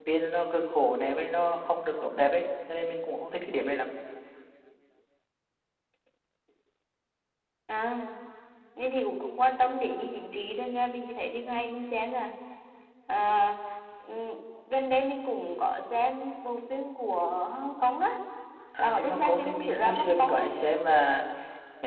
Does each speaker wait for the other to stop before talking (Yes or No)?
No